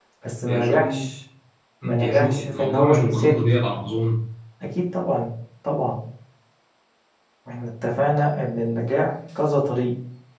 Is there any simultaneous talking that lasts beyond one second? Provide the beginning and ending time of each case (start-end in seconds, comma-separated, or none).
2.0-3.4